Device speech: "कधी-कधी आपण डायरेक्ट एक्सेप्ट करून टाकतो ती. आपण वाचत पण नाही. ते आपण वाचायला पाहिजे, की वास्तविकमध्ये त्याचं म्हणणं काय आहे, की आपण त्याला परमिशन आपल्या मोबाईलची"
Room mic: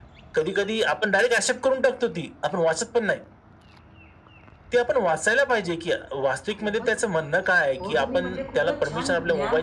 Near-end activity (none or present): present